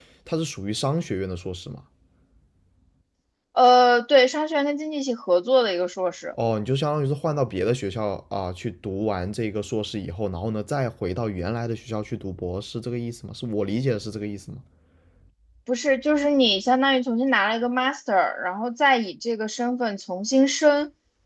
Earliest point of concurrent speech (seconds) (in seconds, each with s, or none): none